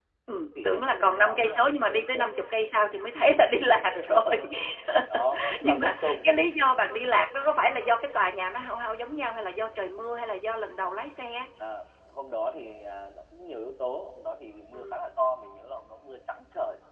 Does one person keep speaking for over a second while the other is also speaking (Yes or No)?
Yes